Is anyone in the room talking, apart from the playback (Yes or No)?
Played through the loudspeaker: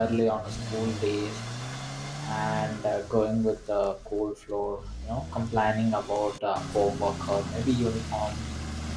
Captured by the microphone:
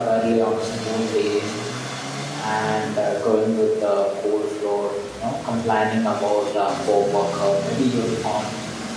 No